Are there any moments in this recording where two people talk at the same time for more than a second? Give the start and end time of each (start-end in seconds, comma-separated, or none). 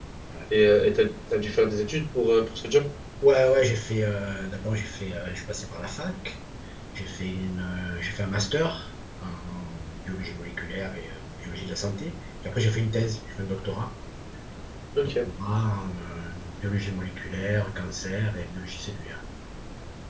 none